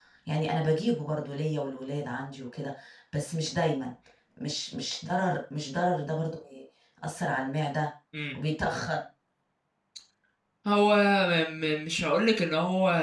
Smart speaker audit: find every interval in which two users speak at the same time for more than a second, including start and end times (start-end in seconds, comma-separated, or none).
none